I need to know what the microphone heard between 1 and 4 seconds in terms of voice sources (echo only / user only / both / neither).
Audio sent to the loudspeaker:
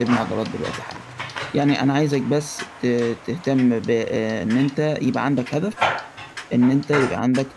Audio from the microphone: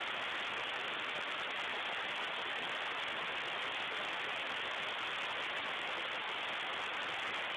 neither